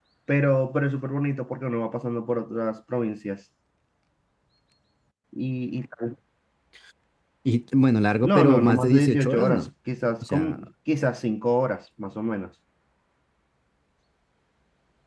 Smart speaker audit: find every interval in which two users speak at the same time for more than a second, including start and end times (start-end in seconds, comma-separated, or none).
8.2-9.7